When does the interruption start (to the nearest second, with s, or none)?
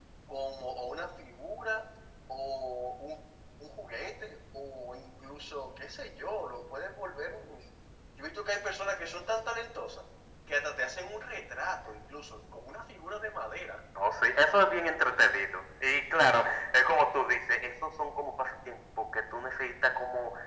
none